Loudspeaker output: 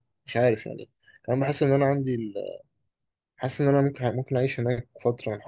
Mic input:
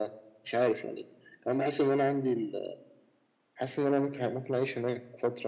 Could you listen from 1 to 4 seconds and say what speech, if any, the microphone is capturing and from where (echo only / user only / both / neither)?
echo only